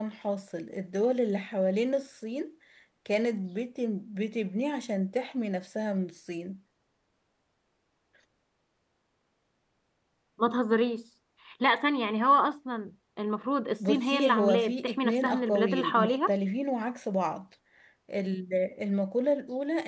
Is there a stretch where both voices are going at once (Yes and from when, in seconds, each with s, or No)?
Yes, from 13.8 s